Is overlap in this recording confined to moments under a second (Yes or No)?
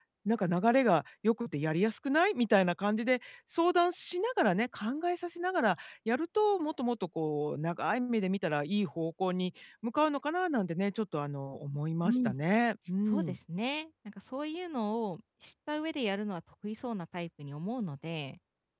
Yes